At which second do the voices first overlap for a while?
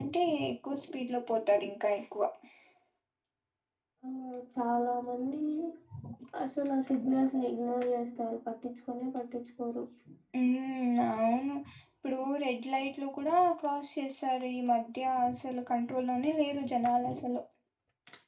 none

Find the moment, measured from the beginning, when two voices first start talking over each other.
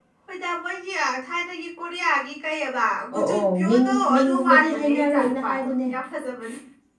3 s

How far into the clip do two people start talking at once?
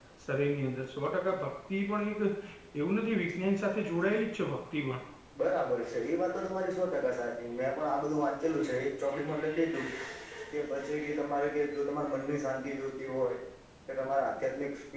none

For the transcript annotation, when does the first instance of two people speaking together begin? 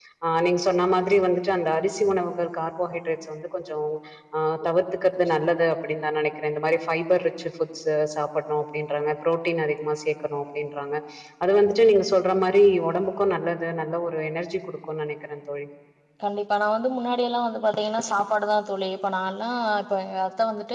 none

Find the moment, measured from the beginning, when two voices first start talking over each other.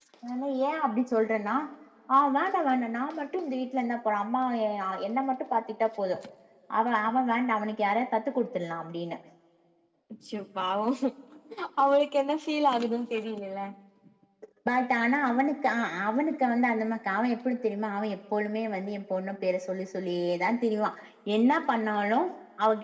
none

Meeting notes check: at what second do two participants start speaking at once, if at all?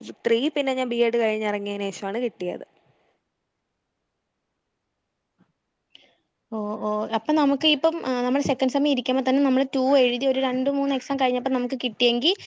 none

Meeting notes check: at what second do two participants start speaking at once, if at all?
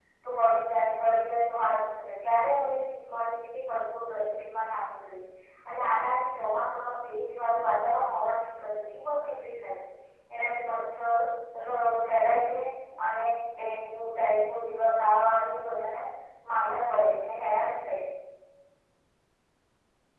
none

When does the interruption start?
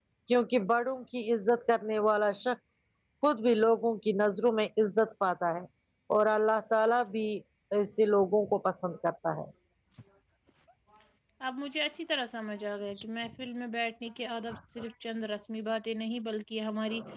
none

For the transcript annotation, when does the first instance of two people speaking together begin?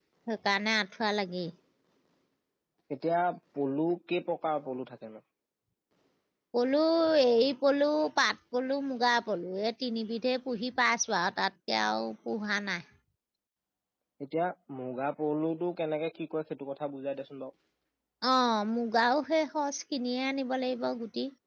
none

